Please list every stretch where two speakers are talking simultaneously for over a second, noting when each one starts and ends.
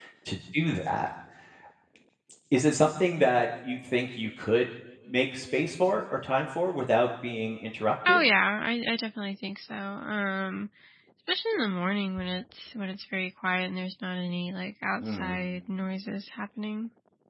none

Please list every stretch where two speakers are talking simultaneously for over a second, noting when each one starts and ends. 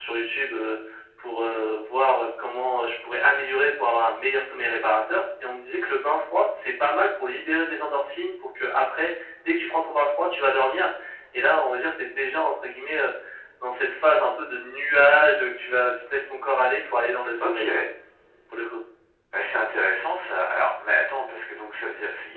none

